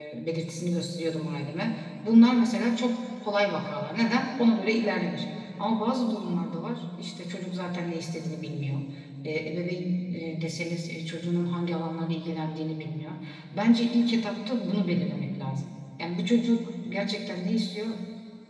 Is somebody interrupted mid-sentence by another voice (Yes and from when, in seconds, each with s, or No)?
No